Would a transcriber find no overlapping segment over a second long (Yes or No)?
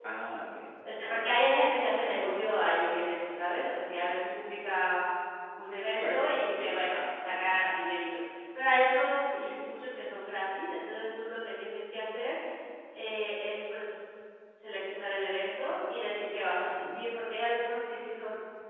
No